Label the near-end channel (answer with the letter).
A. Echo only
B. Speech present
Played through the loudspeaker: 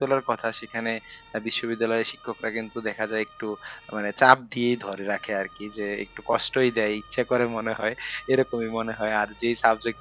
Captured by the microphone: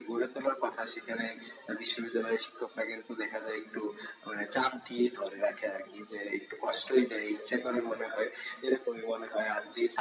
A